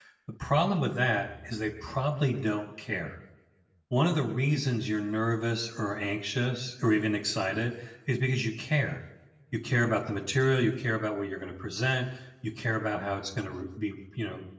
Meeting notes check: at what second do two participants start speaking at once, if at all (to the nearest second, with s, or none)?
none